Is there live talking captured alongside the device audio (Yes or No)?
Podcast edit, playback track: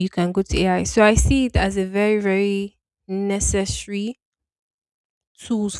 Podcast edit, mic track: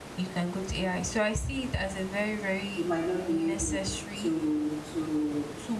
Yes